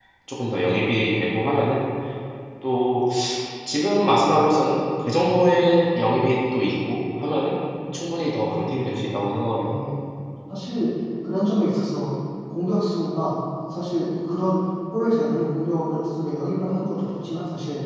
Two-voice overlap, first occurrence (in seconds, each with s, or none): none